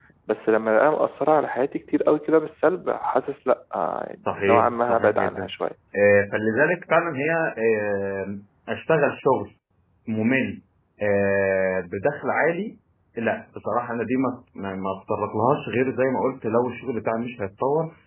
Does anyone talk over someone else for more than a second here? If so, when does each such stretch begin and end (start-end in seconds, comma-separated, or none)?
4.3-5.5